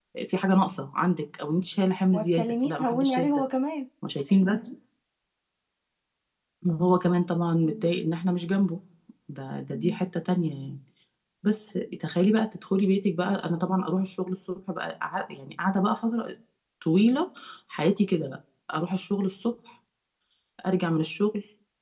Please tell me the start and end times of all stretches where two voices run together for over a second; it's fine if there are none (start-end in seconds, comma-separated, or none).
2.1-3.4